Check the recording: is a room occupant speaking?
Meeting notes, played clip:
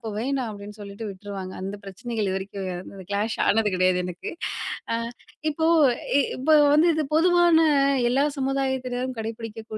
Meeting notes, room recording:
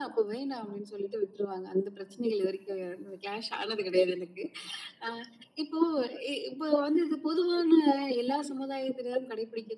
No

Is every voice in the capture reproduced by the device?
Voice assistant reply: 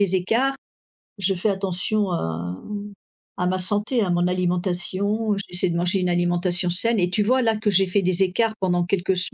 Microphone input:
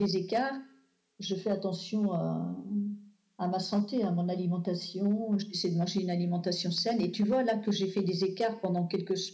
Yes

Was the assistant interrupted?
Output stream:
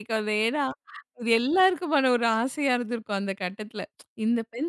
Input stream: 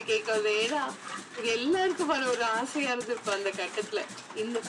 No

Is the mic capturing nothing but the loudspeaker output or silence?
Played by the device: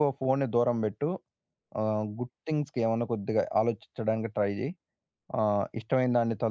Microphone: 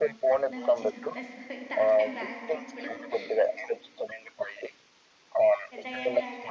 No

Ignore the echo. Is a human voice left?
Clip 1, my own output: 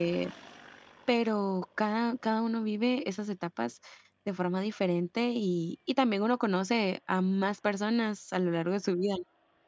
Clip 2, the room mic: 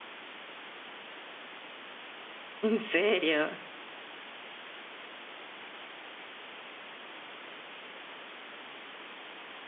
Yes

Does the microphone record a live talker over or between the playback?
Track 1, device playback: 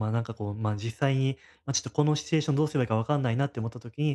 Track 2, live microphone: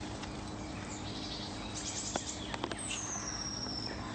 No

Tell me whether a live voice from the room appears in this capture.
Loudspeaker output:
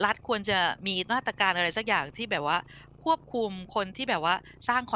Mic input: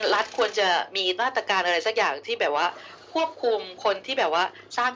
No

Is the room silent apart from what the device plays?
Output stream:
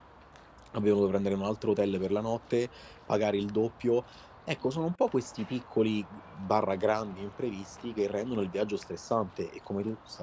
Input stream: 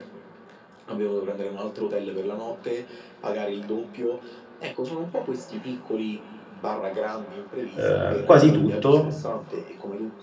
No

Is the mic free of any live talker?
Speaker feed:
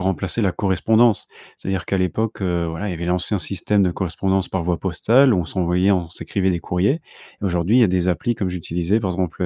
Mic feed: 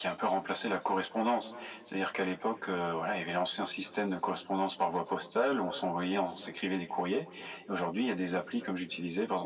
Yes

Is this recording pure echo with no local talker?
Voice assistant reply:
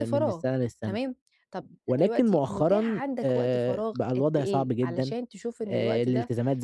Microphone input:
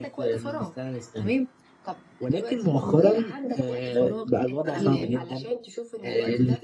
No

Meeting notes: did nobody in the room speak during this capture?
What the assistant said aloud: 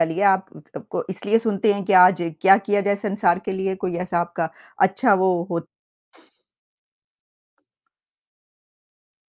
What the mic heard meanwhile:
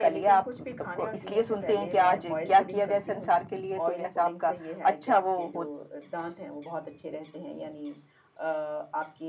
No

